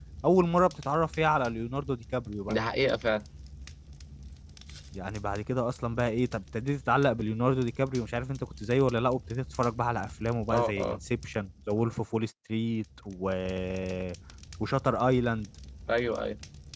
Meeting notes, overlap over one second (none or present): none